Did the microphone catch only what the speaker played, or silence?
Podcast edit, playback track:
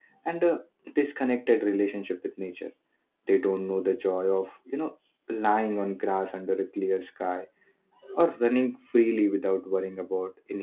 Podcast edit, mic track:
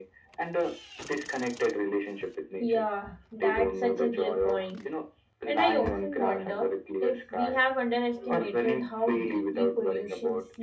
No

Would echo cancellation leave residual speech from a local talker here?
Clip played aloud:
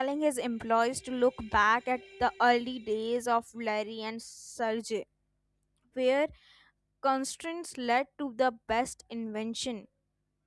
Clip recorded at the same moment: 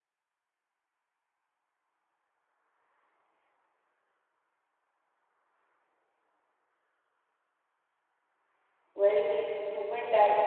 Yes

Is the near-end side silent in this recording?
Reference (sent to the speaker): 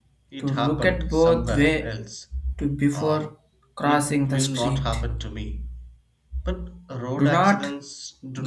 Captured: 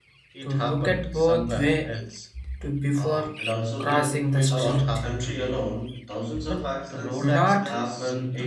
No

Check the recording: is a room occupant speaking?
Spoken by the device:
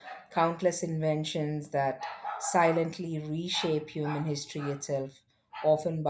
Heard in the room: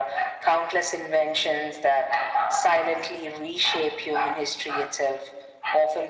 No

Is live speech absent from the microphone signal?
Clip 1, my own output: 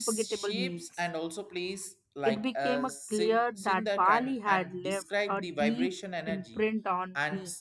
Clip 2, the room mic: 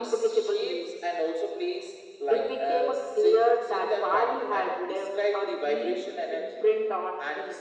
Yes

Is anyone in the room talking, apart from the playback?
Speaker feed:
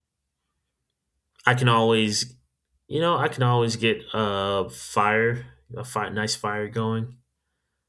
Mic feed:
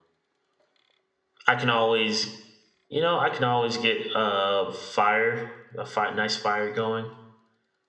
No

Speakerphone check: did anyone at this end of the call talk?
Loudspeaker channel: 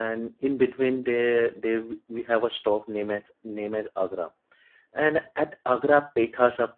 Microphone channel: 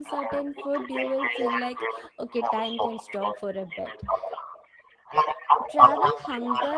Yes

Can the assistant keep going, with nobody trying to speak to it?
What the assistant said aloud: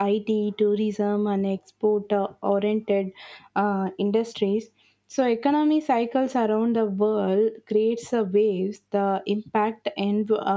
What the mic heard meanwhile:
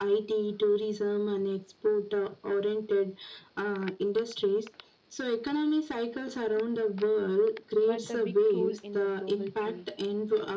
No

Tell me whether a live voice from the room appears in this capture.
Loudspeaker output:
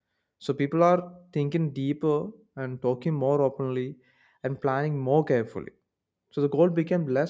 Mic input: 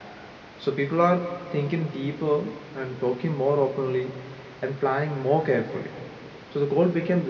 No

